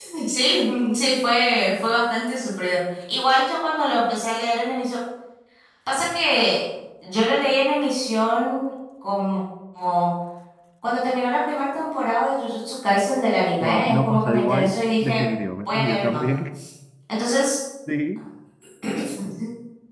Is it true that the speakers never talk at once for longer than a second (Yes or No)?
No